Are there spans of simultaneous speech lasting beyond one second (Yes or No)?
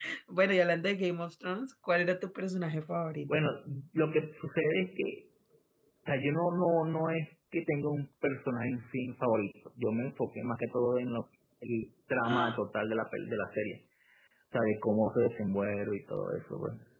No